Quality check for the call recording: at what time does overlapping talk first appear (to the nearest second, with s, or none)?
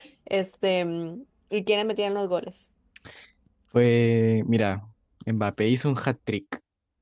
none